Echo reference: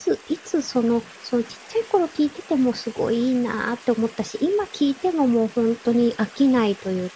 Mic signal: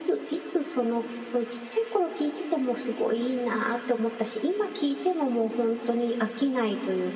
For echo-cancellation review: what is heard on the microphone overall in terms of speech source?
echo only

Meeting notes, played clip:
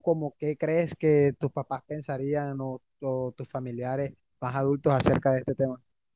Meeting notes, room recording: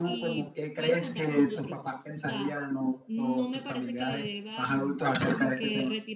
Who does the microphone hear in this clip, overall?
both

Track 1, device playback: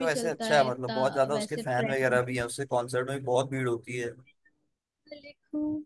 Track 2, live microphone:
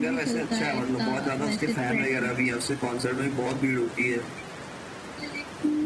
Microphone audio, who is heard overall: echo only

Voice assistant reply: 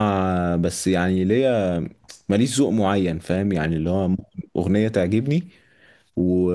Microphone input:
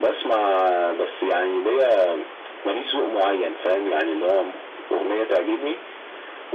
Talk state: echo only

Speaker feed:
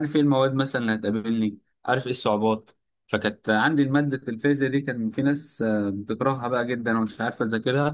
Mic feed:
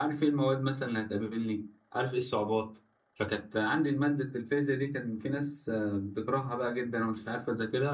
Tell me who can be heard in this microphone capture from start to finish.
echo only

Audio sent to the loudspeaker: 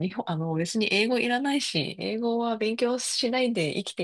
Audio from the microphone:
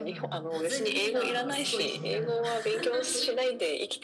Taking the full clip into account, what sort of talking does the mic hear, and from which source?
both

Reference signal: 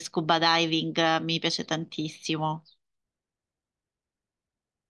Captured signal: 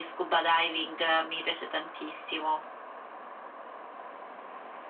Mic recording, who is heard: echo only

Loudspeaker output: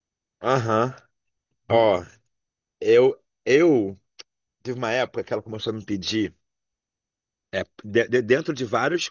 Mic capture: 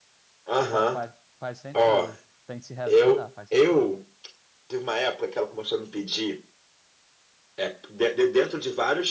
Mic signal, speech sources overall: both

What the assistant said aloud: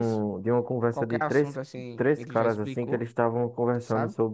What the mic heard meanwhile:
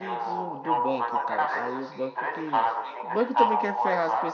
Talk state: both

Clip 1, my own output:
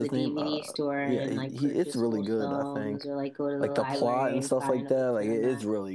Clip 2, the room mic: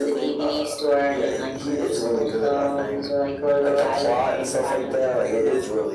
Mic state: echo only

